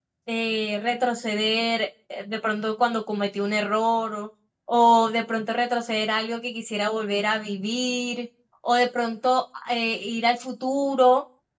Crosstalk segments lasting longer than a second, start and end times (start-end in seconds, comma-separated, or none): none